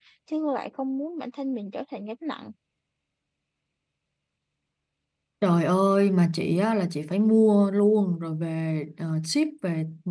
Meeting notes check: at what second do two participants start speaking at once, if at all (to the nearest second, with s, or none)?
none